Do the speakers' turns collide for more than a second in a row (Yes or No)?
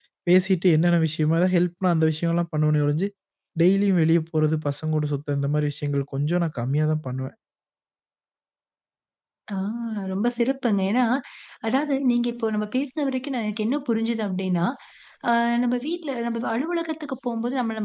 No